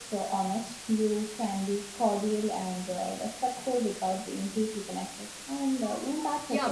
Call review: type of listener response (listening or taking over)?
taking over